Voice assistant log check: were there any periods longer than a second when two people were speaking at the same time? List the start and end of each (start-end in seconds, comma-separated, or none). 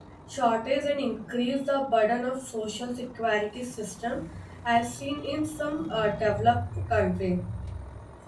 none